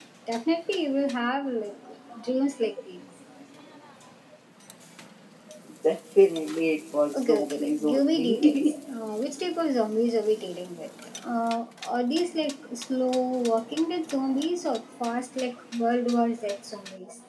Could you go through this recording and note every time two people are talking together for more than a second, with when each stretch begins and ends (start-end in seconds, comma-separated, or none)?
7.2-8.7